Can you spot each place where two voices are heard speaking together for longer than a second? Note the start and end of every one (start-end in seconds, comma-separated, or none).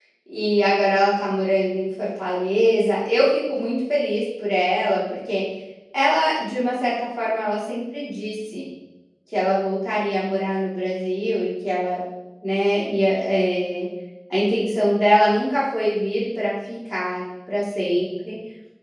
none